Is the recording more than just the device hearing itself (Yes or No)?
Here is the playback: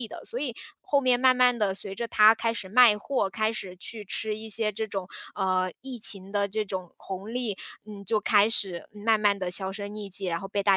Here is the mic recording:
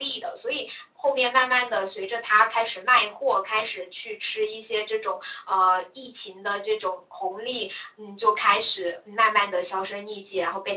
No